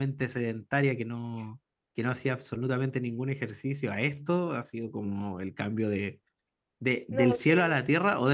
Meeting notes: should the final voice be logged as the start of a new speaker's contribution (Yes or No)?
No